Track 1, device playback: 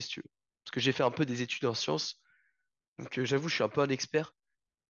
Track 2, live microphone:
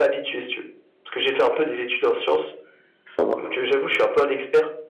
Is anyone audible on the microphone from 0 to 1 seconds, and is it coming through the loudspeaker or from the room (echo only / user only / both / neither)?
echo only